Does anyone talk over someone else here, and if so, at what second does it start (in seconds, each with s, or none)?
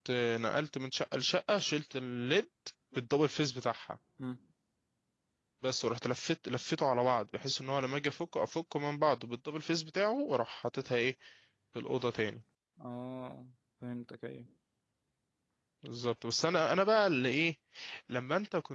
none